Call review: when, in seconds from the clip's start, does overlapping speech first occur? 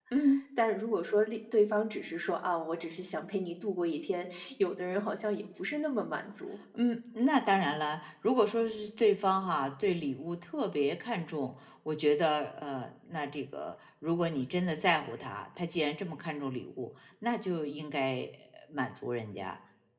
none

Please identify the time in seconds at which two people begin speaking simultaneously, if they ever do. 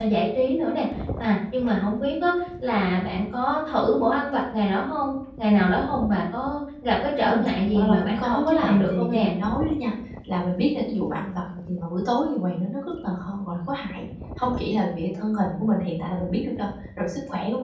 7.2 s

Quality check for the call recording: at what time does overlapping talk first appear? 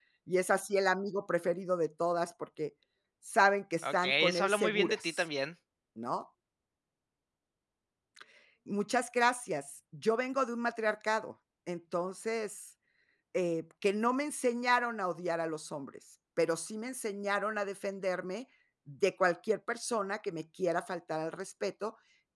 3.8 s

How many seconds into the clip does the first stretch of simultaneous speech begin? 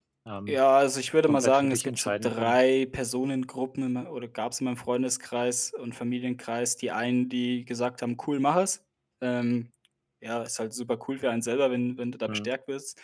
1.3 s

